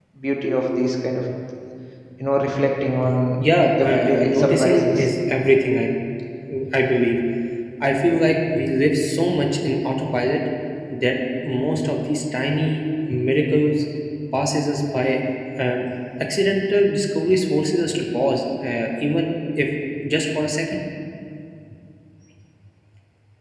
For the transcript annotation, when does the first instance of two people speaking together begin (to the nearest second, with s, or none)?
4 s